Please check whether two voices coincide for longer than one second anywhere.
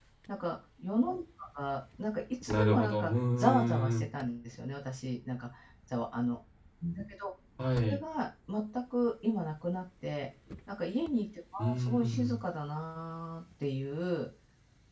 Yes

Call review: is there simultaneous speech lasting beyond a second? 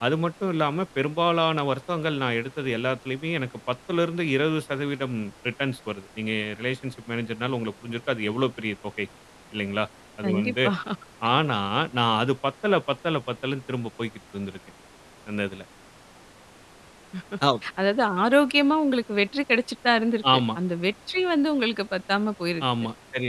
No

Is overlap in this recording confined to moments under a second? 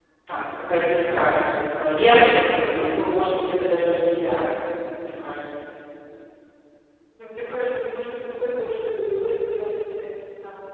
Yes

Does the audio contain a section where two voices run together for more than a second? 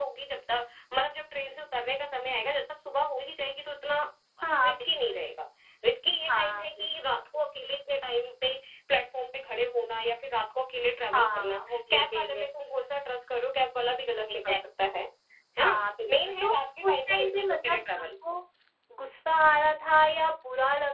Yes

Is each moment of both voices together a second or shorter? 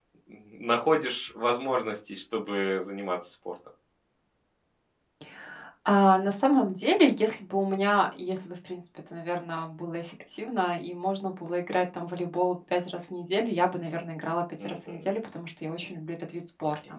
Yes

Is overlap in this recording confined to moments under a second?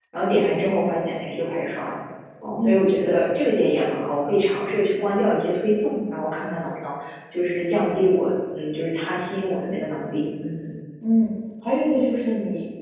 Yes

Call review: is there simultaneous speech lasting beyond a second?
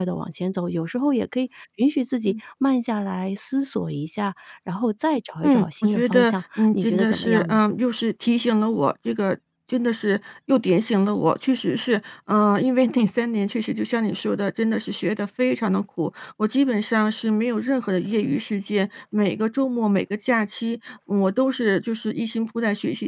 Yes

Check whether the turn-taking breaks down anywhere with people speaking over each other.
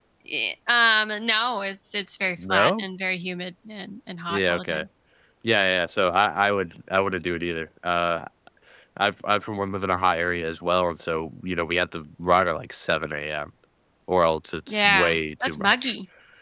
Yes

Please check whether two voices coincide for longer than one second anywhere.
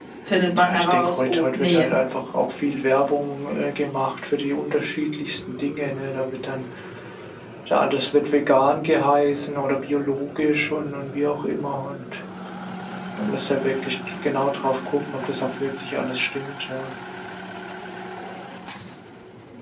Yes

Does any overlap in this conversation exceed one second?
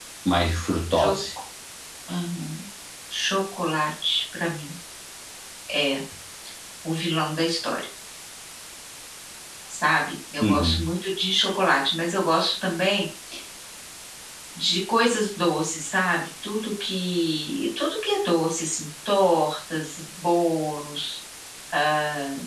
No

